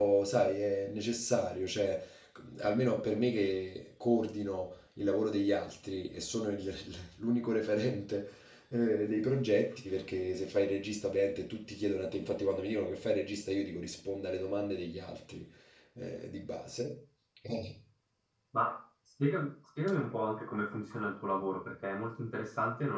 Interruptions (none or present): none